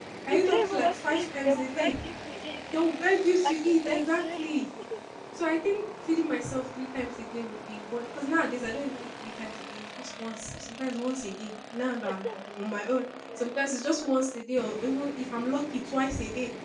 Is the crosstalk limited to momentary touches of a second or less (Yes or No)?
No